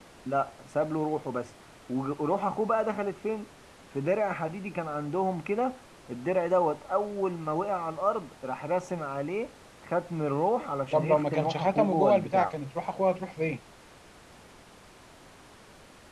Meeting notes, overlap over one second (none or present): present